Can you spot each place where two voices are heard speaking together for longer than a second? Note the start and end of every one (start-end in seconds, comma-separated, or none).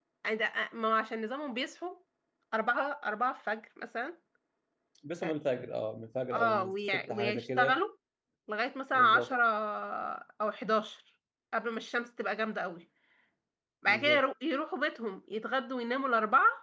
6.3-7.8